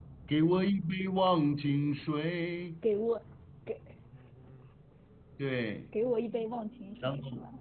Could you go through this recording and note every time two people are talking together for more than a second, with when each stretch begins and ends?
none

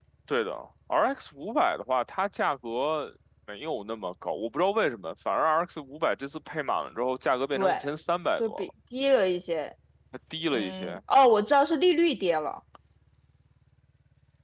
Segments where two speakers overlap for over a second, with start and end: none

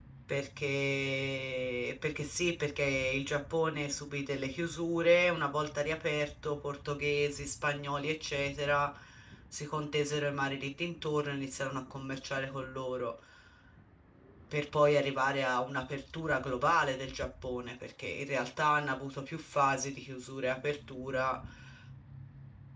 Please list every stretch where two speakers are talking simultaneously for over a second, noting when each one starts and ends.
none

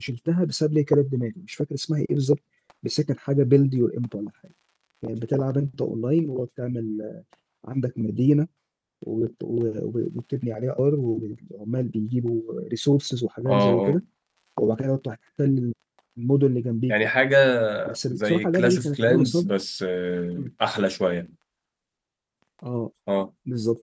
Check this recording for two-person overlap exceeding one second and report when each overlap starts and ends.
18.1-19.5

